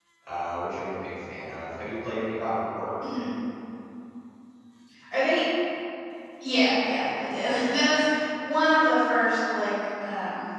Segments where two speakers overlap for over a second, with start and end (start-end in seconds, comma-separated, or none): none